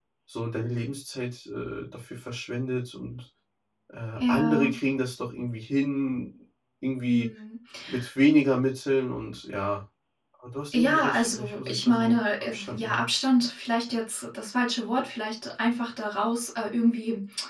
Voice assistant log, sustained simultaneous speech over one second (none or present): present